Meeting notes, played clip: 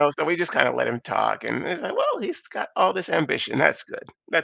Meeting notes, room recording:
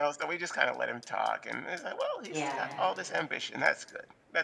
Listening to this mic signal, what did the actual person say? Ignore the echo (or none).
Yeah.